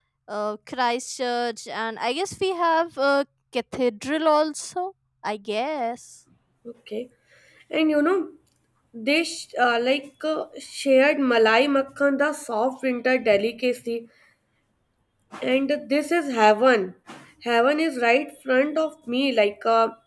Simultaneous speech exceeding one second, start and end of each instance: none

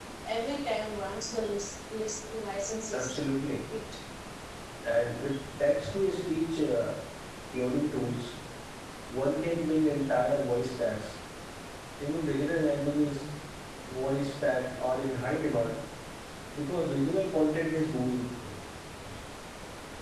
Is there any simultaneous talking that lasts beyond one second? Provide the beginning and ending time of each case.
none

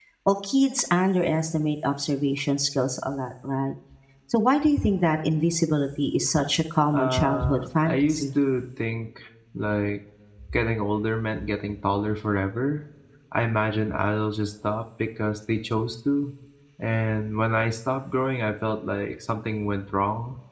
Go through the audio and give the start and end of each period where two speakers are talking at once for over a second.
6.9-8.2

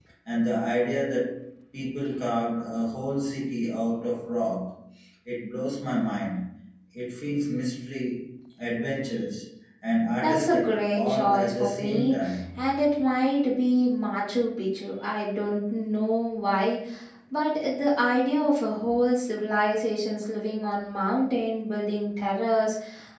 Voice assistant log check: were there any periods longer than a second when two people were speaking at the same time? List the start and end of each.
10.2-12.2

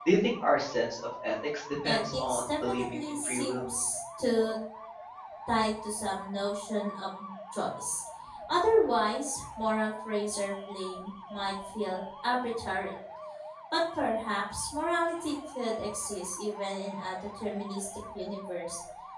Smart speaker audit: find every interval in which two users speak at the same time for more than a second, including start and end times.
1.8-3.6

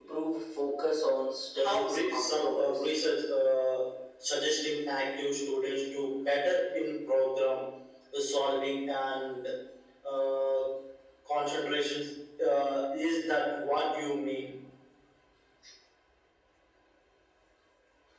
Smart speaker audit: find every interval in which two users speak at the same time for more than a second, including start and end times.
1.6-2.9

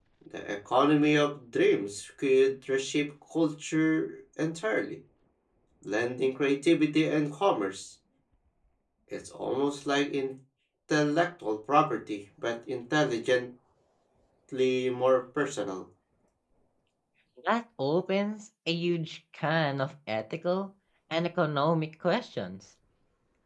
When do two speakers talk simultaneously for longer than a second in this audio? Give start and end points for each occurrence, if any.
none

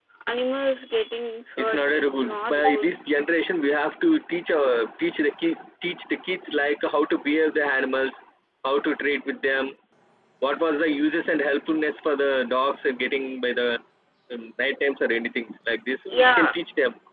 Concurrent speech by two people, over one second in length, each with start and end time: 1.6-2.9

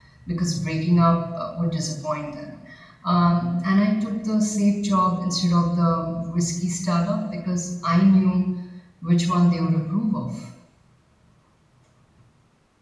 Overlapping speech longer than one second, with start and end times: none

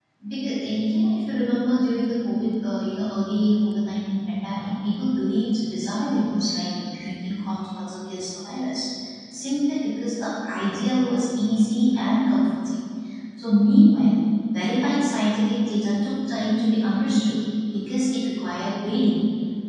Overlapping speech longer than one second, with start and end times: none

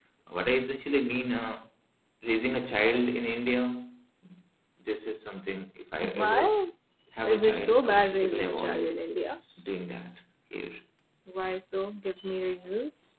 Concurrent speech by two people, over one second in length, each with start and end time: 7.2-8.9

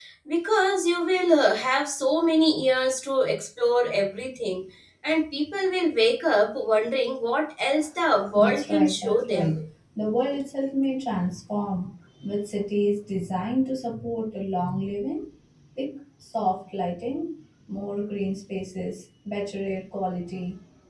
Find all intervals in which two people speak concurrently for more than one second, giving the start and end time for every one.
8.3-9.5

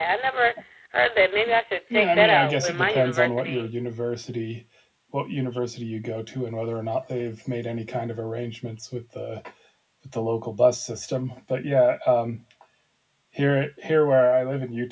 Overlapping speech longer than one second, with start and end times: 1.9-3.7

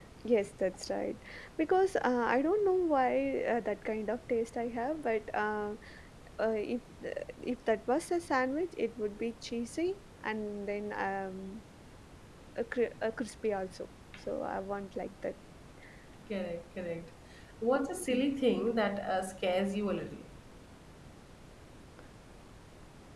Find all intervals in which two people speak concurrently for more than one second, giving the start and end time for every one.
none

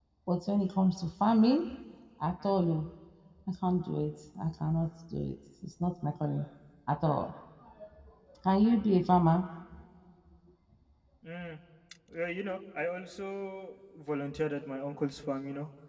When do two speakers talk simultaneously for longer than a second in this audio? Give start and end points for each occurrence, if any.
none

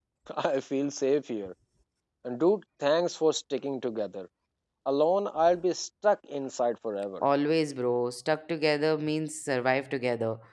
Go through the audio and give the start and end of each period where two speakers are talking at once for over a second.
none

